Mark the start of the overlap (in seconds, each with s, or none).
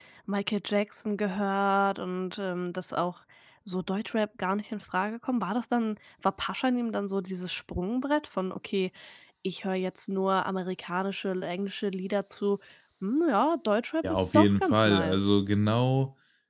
14.0 s